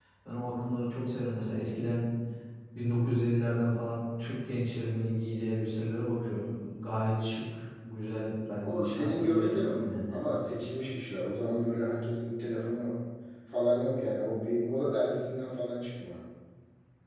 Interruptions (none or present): present